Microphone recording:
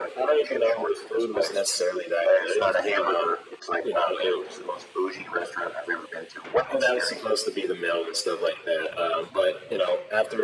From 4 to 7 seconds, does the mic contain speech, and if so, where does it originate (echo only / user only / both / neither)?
echo only